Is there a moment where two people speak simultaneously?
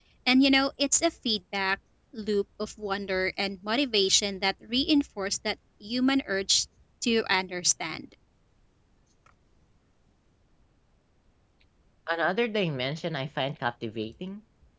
No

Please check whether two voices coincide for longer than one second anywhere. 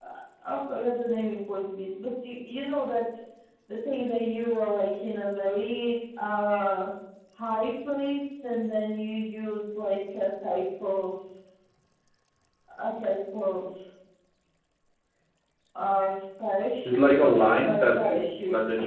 Yes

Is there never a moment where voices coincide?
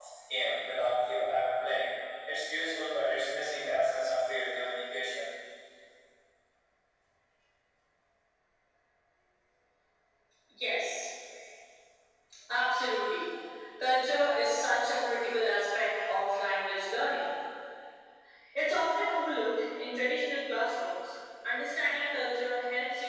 Yes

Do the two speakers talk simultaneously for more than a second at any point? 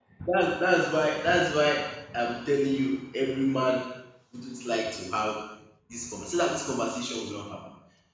No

